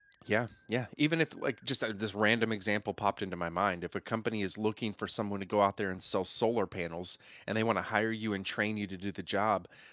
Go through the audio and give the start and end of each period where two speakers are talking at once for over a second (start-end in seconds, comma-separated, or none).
none